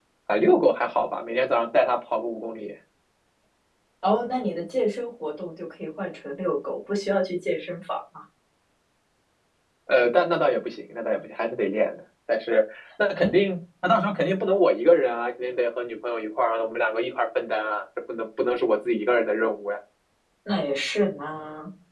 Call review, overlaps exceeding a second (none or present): none